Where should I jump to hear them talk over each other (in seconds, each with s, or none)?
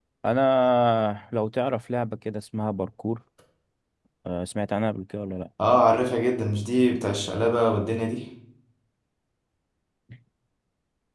none